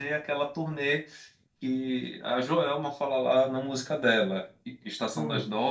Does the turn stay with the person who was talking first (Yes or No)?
Yes